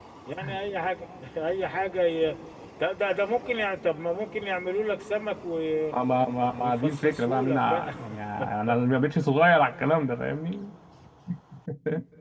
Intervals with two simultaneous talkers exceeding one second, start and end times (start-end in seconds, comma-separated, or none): 6.6-7.9